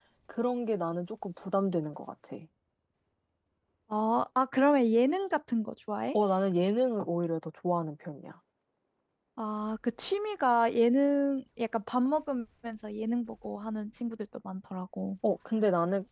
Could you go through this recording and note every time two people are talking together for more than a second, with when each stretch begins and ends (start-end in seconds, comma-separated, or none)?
none